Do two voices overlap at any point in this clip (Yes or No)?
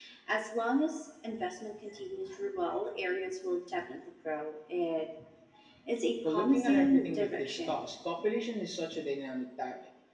Yes